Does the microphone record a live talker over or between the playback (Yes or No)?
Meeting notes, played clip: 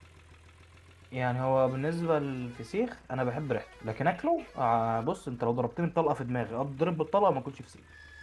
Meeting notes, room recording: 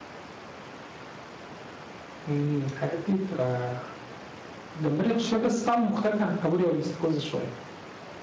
Yes